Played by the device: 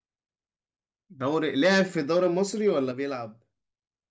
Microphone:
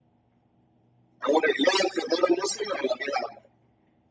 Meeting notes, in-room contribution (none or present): none